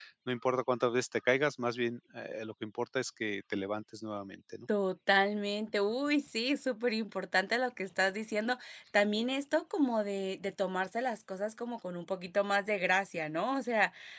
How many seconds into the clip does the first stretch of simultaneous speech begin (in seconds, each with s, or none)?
none